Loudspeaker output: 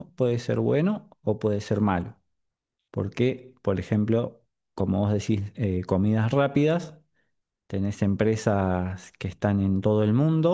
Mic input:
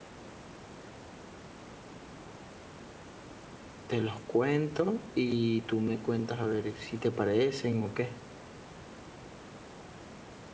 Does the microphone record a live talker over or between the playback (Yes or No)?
Yes